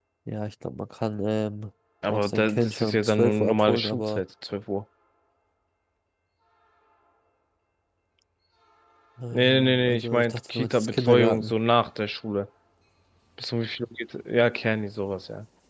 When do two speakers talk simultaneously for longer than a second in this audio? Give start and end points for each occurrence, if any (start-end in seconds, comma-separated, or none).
2.1-4.2, 9.3-11.5